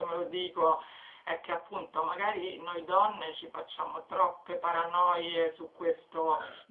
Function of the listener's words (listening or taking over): listening